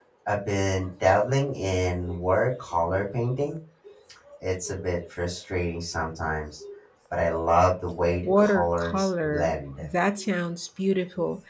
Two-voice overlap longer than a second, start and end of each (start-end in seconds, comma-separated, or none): 8.2-9.9